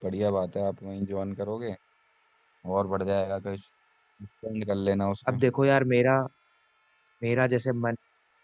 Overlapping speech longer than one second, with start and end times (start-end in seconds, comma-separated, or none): none